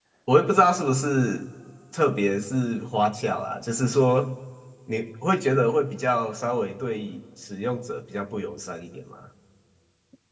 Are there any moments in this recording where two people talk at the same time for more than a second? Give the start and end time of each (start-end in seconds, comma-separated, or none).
none